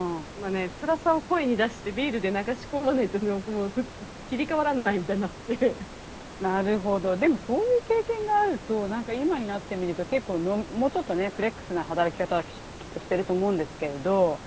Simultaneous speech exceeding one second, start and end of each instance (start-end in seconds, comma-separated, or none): none